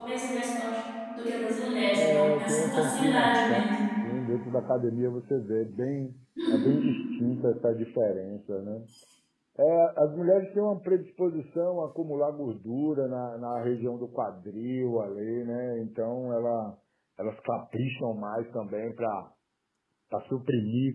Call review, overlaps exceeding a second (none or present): present